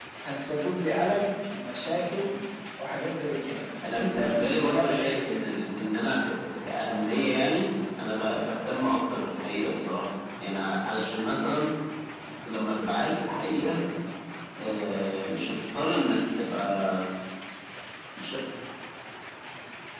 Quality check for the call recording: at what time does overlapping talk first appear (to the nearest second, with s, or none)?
4 s